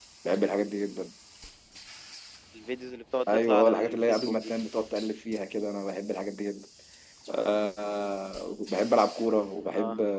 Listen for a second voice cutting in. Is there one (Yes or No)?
Yes